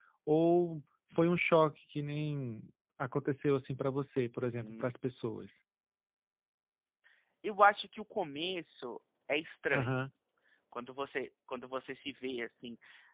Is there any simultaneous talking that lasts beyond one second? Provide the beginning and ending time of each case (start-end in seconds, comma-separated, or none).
none